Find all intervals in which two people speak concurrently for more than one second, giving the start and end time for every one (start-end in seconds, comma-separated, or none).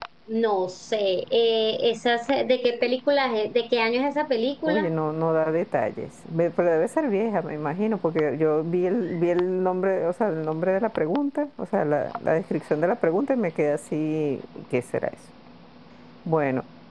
none